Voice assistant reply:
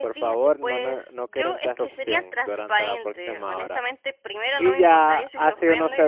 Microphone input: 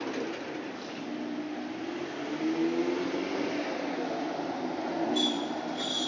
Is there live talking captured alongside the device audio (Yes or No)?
No